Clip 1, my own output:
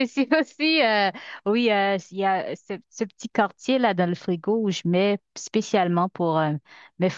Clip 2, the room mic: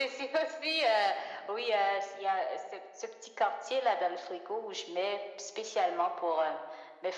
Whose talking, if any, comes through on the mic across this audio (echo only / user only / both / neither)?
echo only